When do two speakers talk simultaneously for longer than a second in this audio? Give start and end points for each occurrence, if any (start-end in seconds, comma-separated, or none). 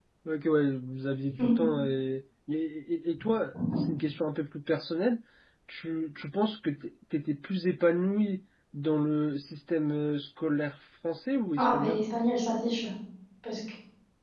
none